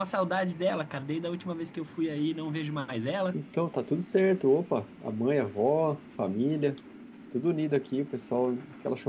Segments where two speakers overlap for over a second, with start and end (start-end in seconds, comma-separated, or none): none